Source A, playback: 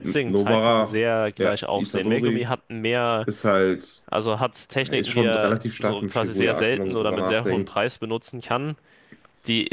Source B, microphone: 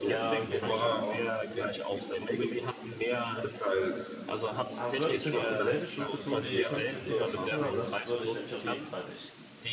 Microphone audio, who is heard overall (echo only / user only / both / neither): both